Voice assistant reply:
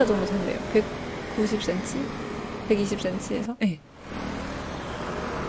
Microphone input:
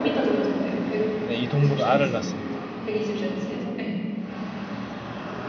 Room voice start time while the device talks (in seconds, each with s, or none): 1.2 s